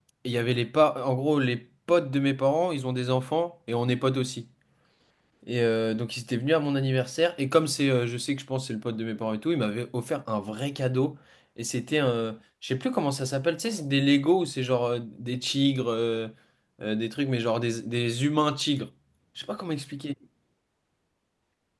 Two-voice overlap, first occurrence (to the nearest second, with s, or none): none